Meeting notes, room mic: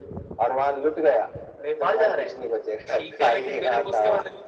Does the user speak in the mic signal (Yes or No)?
No